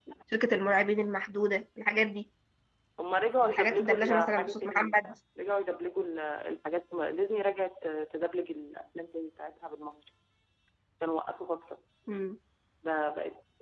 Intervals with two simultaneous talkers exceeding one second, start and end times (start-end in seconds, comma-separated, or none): 3.4-4.9